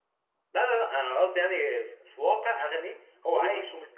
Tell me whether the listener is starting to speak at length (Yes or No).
No